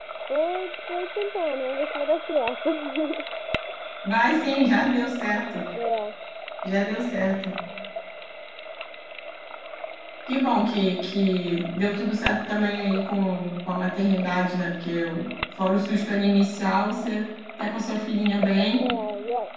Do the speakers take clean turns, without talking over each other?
Yes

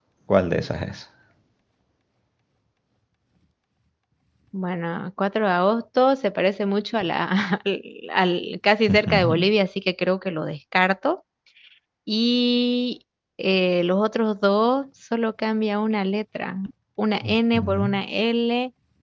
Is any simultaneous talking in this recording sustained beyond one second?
No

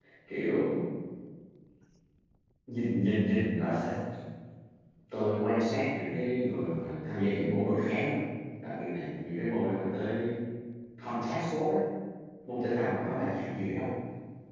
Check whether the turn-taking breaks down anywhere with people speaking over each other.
No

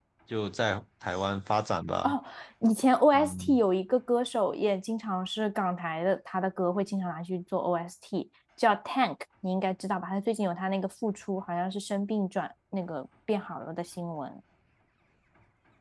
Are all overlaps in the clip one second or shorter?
Yes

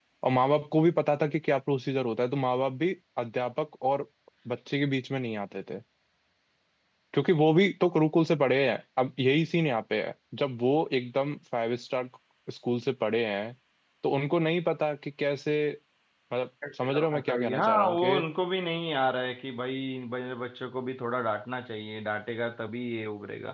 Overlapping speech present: Yes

